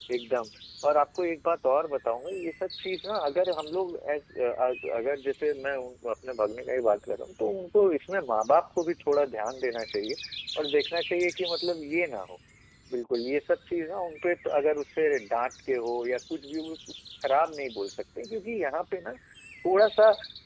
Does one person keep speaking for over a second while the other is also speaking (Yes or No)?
No